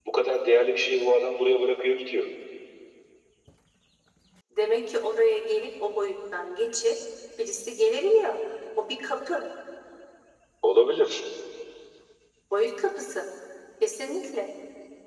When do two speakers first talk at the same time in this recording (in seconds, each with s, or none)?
none